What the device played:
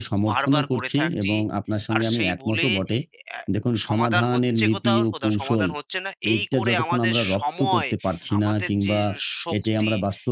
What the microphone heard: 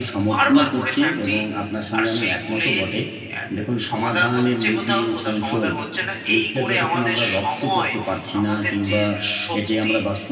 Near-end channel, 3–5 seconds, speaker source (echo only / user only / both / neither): echo only